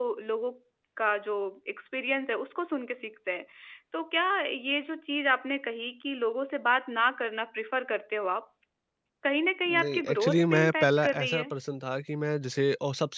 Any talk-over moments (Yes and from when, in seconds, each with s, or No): Yes, from 9.7 s